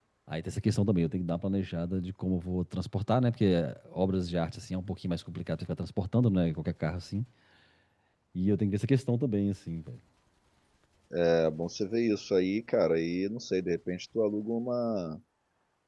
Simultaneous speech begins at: none

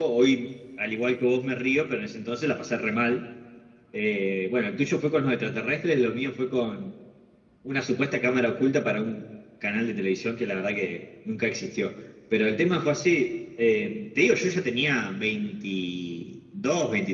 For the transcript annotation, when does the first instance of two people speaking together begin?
none

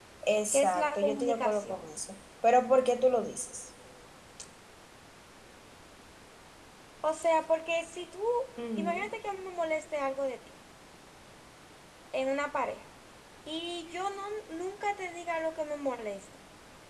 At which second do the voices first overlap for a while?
1 s

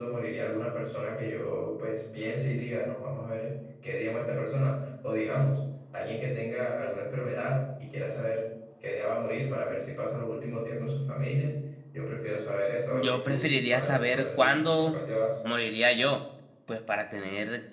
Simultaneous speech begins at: 13 s

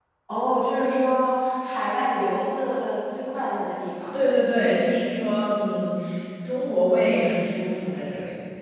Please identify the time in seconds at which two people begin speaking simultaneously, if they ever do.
none

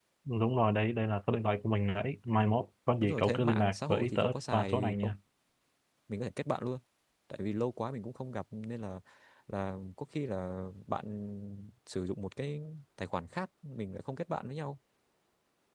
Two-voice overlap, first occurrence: 3 s

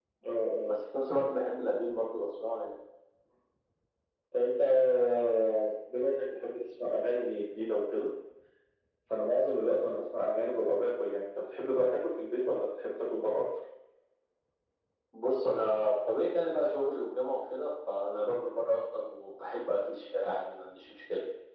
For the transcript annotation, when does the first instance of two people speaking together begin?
none

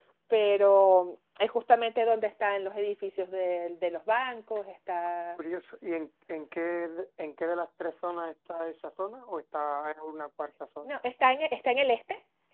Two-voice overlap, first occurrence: none

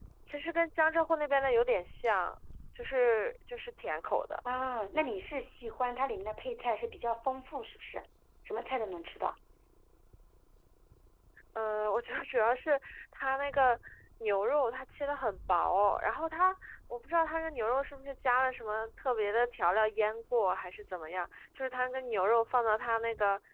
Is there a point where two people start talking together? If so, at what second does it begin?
none

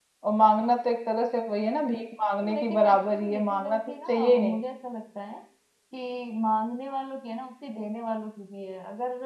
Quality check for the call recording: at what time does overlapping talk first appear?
2 s

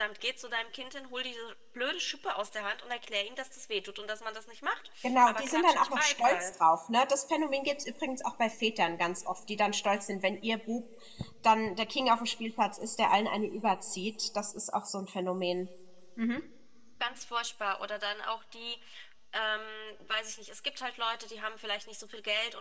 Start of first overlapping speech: 5 s

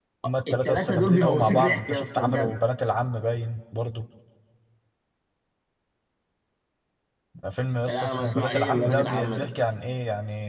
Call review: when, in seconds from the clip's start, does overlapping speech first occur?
1 s

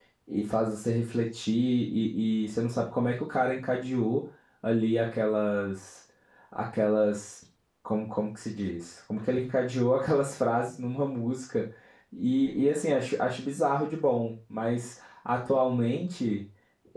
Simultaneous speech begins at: none

